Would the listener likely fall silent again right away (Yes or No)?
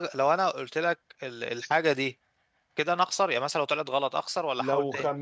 No